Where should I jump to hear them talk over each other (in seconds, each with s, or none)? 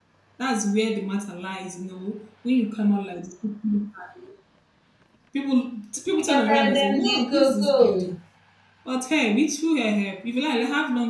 6.3 s